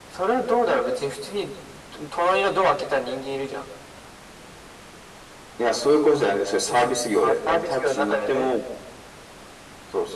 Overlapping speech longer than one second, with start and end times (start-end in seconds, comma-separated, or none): 7.2-8.5